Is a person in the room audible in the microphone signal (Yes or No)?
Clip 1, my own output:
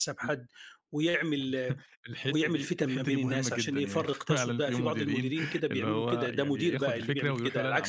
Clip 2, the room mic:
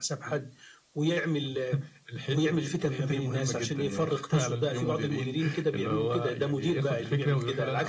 No